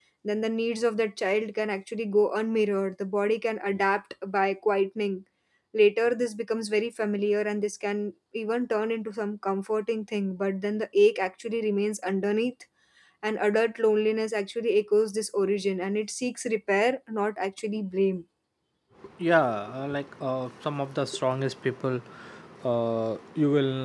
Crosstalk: none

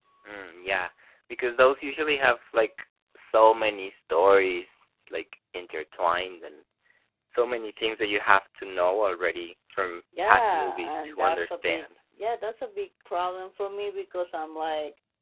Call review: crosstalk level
present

